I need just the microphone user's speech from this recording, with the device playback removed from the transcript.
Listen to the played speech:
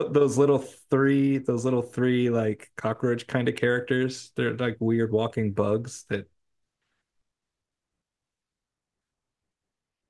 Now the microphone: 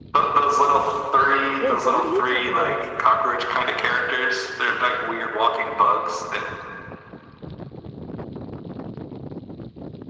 Wait, so what are you talking about?

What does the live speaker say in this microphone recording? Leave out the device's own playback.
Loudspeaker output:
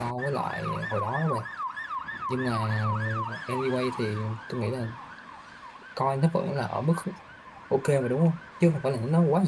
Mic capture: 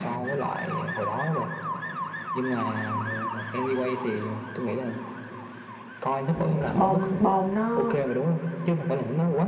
ừ, bom bom nó

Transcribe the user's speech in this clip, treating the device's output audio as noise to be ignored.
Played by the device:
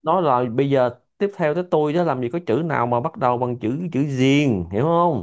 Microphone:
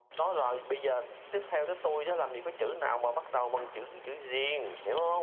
none

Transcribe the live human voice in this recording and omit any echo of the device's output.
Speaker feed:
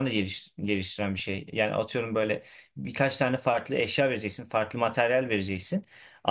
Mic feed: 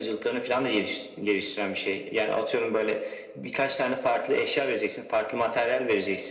none

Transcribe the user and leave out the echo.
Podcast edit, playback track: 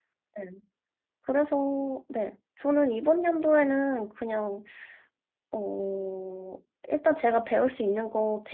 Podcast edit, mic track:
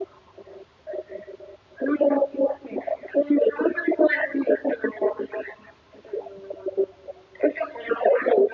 none

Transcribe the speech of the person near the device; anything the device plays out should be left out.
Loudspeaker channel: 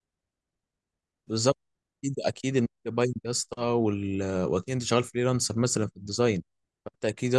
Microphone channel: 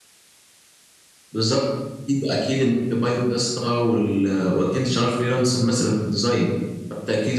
none

